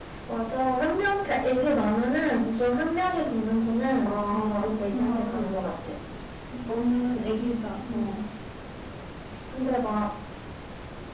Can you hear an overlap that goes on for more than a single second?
Yes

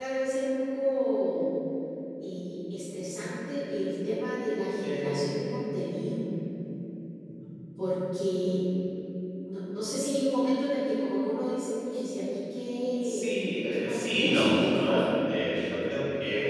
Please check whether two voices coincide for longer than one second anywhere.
Yes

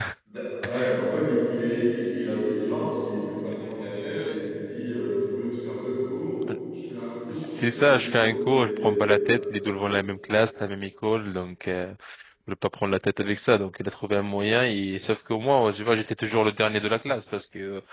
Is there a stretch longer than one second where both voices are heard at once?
Yes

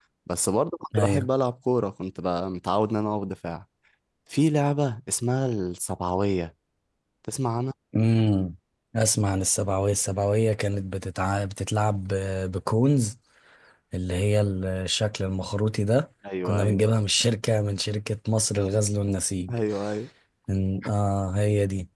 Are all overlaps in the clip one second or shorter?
Yes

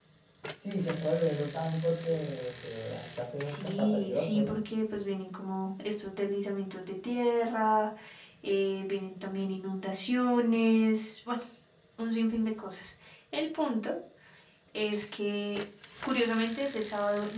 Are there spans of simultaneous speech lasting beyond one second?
Yes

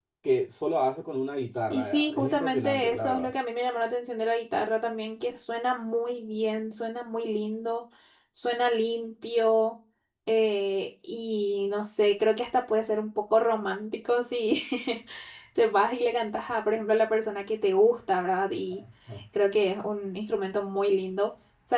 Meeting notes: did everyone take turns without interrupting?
No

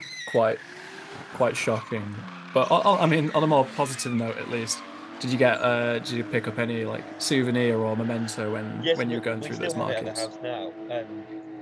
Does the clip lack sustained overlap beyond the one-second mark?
No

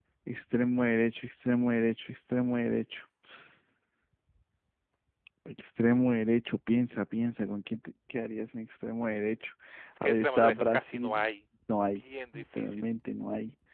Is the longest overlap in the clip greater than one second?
Yes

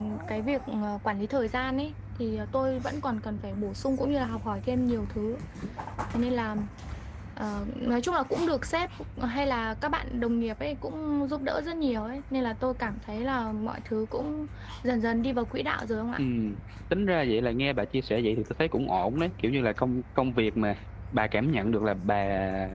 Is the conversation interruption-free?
Yes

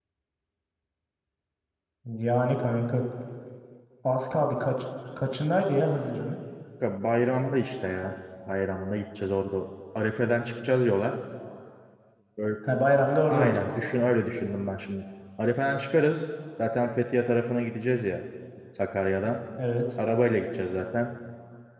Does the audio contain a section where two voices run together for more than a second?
No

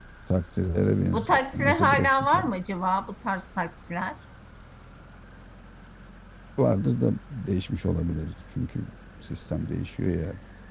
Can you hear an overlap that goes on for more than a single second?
Yes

